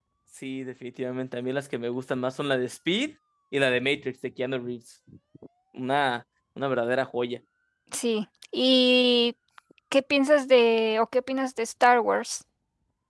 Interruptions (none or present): none